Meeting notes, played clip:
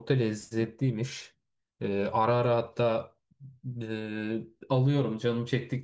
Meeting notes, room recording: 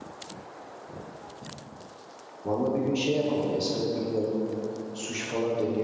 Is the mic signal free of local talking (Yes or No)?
No